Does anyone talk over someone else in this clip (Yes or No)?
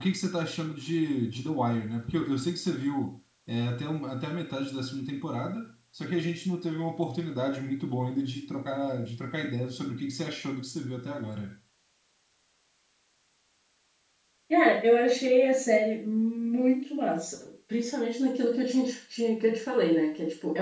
No